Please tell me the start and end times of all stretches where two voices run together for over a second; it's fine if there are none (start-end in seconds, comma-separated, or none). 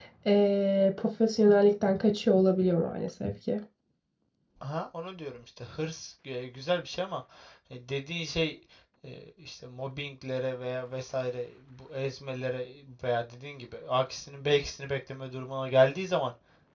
none